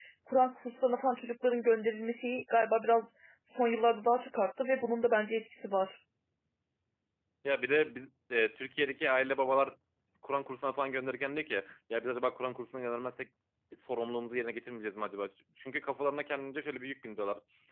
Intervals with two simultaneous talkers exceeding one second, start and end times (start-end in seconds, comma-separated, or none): none